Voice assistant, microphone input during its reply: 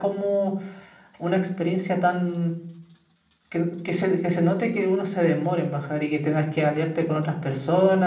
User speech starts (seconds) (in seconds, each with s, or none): none